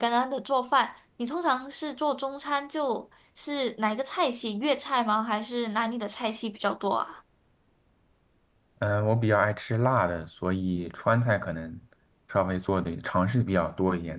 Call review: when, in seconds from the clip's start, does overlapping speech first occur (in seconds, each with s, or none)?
none